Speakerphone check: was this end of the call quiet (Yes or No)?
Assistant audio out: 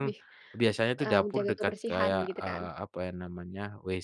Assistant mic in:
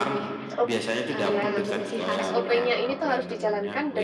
No